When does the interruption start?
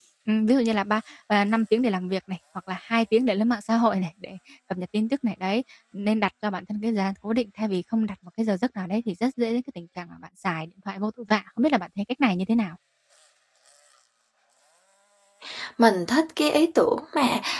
none

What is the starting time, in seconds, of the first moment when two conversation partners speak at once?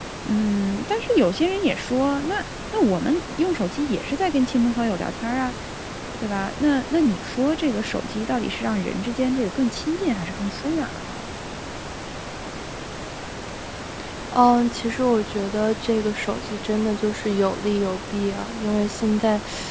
none

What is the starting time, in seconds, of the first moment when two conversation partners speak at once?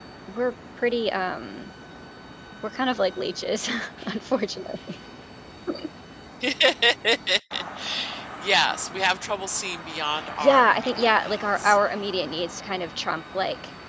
10.1 s

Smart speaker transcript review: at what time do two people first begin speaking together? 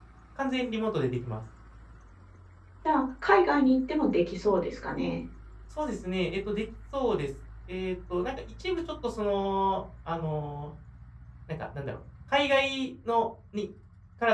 none

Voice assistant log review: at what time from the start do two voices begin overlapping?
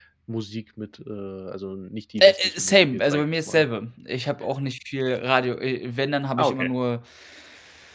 2.2 s

